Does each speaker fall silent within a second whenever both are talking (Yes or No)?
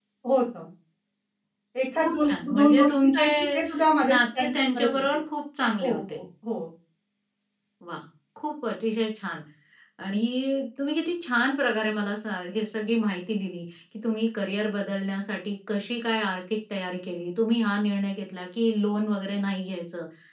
No